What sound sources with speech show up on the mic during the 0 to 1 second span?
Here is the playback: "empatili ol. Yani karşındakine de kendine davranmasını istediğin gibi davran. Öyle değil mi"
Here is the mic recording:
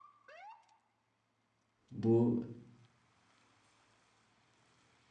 neither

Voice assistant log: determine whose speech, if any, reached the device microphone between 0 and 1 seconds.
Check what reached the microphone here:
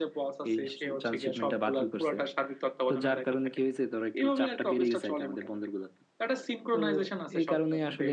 echo only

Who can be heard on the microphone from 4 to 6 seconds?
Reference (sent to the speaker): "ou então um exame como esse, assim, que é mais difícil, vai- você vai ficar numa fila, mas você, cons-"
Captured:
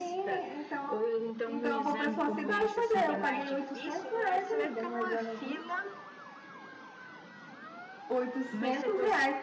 both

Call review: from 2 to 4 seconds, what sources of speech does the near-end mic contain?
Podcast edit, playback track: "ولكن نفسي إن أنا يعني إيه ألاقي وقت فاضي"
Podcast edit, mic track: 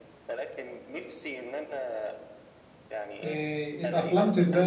both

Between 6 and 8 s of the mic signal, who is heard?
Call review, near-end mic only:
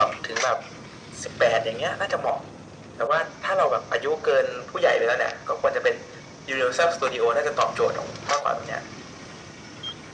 echo only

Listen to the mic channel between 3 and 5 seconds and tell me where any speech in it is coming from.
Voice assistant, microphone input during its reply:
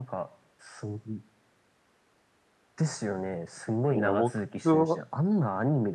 both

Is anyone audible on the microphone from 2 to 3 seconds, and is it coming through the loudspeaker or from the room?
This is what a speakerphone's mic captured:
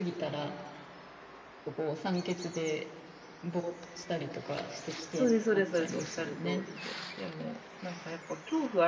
echo only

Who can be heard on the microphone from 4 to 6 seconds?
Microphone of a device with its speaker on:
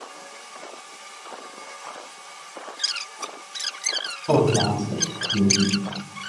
user only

